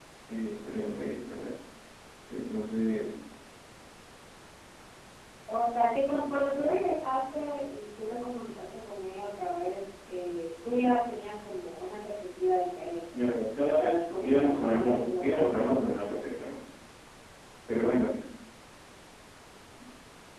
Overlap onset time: 13.1 s

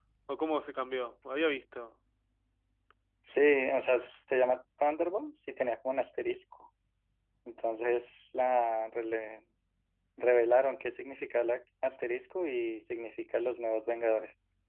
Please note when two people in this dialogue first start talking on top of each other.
none

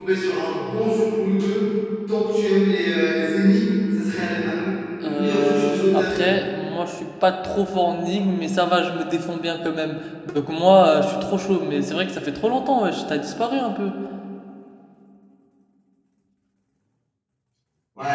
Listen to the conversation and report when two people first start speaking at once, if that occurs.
5.0 s

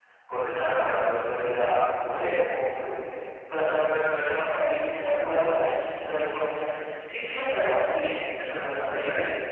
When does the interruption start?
none

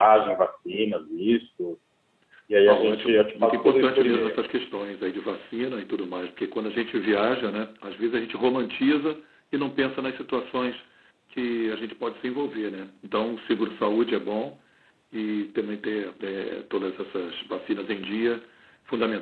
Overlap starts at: 2.7 s

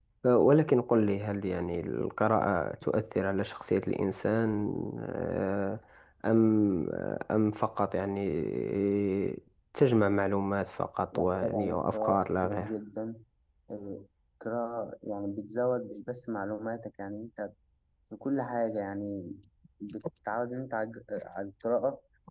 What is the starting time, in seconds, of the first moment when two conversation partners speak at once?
11.1 s

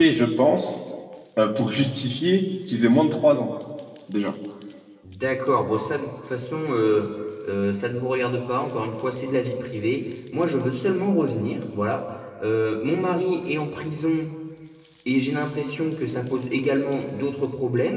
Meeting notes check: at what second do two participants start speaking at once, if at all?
none

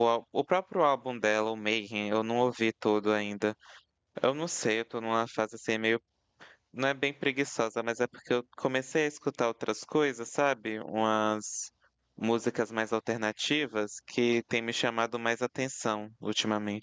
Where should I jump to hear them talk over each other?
none

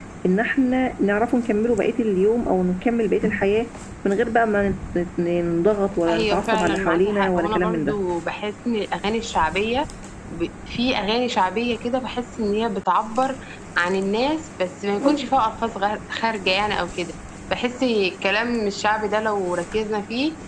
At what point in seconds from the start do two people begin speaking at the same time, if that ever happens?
6.1 s

